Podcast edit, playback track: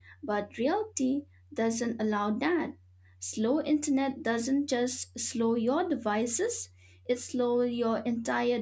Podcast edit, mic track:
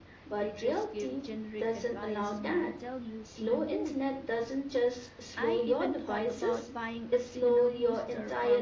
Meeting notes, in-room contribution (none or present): present